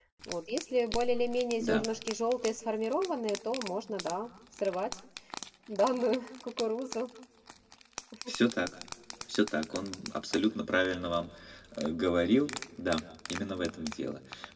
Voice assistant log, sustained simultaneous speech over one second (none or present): none